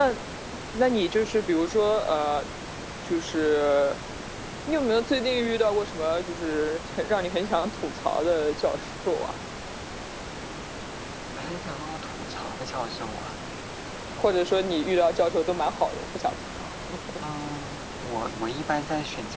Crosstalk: none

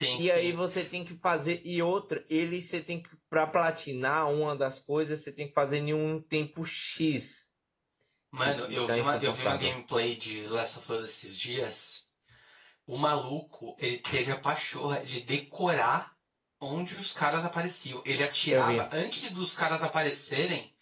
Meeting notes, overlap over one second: present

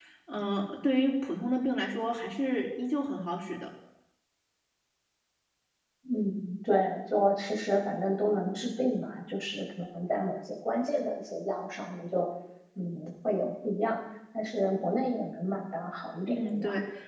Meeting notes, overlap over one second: none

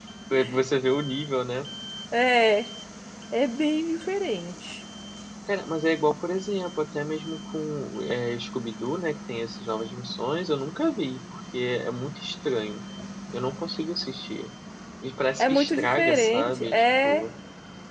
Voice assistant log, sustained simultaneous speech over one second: present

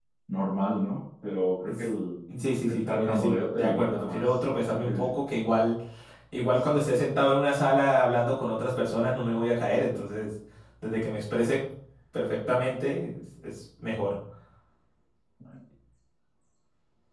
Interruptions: present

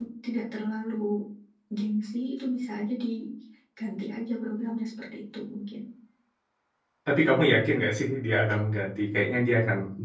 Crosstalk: none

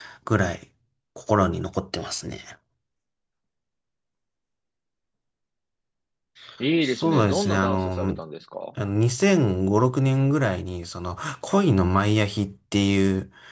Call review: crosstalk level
present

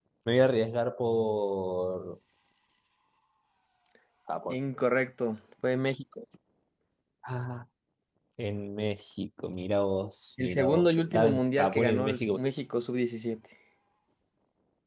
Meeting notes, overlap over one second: present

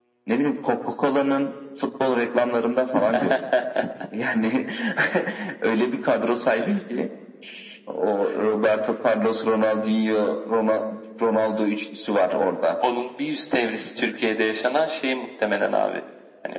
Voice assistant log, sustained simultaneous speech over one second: none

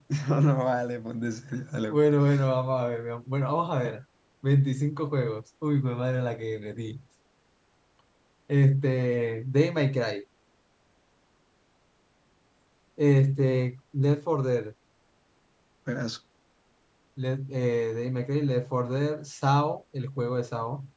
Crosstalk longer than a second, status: none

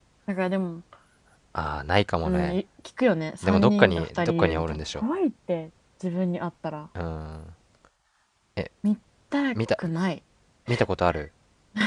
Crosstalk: present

